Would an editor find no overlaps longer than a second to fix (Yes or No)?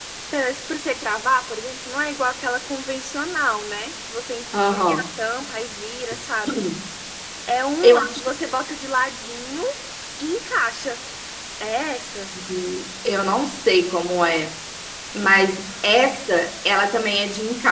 Yes